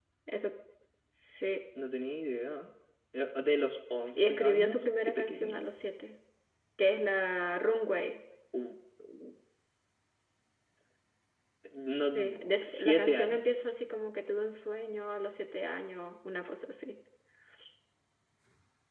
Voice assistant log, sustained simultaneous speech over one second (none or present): present